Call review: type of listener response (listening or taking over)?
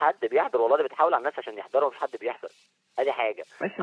taking over